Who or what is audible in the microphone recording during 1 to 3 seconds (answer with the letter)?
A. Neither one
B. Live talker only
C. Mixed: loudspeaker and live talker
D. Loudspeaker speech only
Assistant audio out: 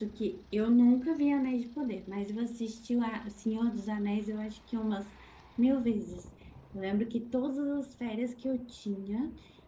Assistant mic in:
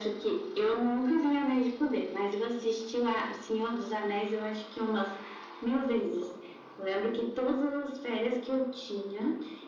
D